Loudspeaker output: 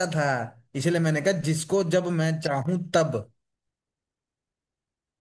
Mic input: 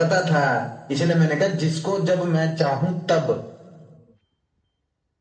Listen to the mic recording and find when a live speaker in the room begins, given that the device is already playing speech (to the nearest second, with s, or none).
none